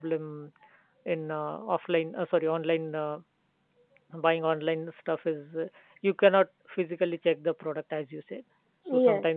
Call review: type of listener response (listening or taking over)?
listening